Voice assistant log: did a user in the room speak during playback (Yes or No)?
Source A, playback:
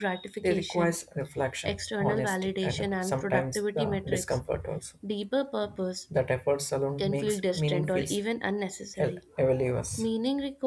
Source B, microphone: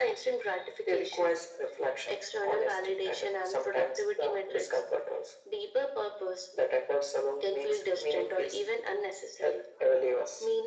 No